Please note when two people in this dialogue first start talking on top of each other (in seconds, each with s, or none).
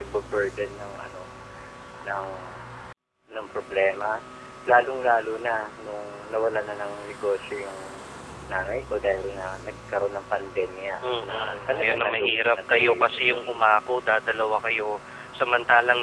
11.0 s